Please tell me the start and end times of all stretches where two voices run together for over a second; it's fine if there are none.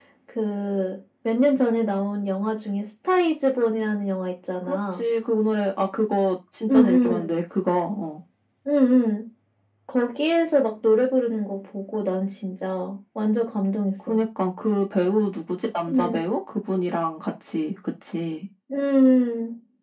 none

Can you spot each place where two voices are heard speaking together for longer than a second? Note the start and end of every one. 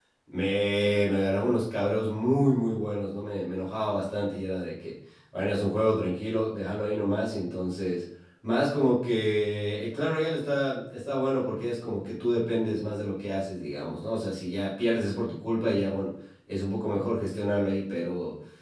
none

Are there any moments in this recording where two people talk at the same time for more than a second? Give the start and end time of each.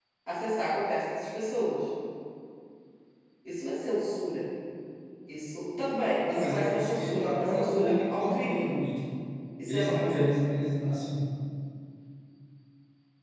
6.3-8.6

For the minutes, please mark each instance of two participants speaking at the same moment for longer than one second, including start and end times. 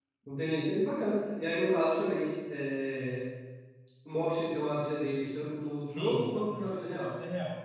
5.9-7.1

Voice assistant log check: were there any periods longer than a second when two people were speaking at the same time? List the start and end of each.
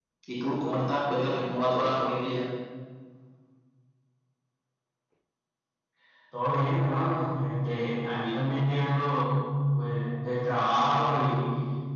none

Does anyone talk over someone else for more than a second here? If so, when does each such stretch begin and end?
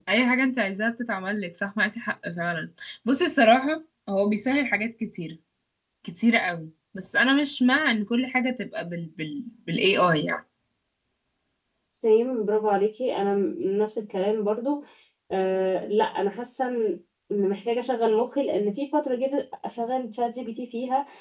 none

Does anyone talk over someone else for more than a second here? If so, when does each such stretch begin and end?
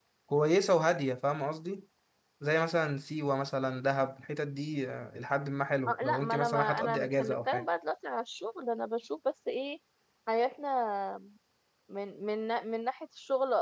5.9-7.6

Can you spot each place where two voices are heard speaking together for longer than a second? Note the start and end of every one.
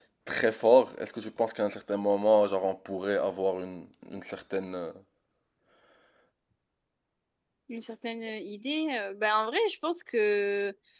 none

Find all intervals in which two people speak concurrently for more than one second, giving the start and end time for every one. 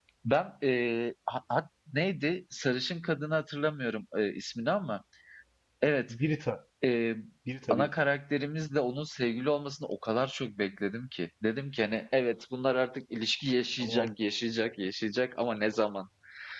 none

